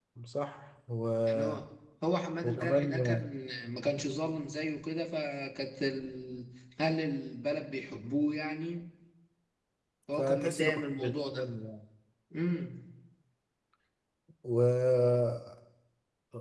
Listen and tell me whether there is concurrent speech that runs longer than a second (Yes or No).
Yes